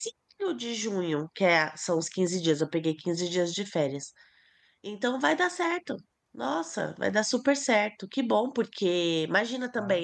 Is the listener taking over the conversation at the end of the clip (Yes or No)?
No